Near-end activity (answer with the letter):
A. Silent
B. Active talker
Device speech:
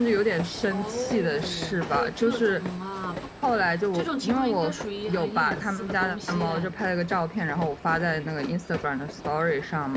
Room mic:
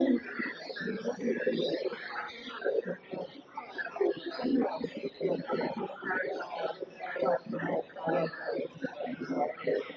A